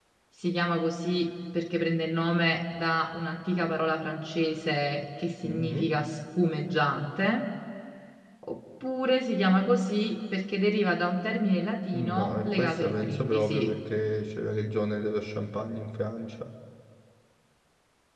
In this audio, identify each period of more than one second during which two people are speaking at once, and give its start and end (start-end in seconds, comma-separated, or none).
11.9-13.7